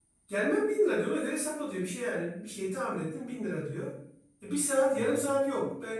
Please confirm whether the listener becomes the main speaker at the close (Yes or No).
No